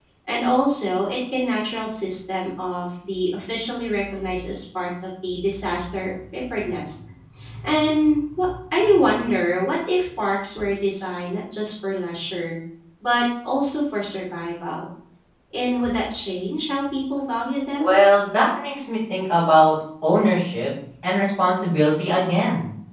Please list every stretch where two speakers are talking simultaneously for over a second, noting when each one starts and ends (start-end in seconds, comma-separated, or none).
none